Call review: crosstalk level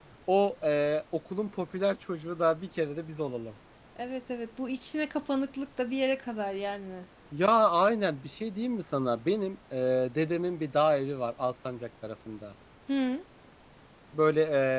none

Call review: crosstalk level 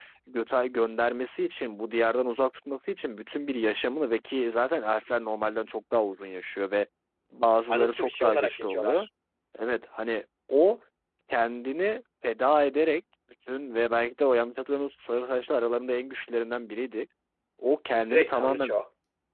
present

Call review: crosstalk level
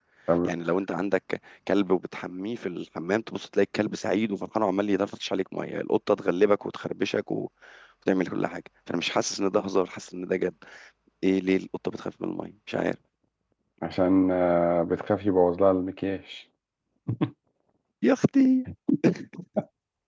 none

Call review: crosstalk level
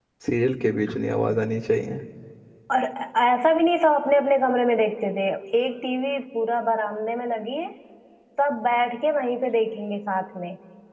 none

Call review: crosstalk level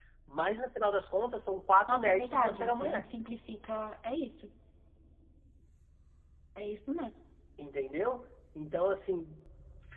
present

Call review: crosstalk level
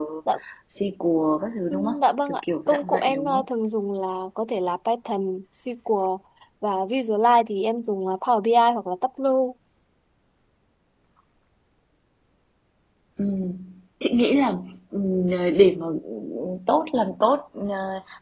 present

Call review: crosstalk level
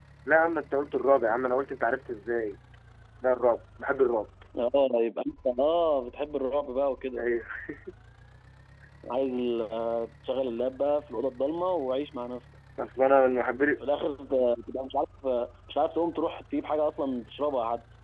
none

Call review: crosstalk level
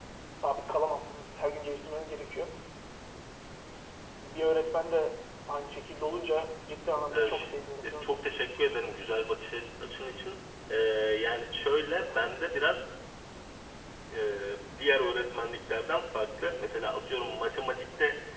present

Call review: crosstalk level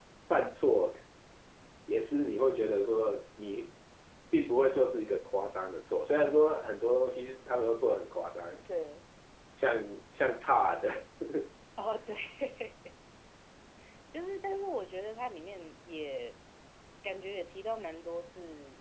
none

